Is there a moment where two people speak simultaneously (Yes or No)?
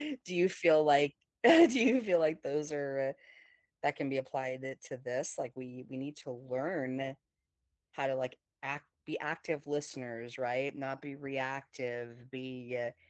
No